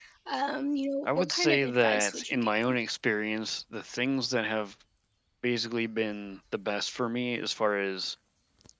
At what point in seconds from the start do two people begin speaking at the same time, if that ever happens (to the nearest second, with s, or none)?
1 s